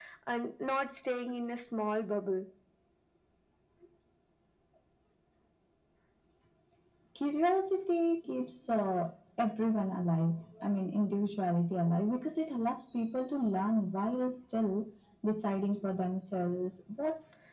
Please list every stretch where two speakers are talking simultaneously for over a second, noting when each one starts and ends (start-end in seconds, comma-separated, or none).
none